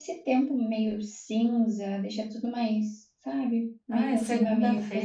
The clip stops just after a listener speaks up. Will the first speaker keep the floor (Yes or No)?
No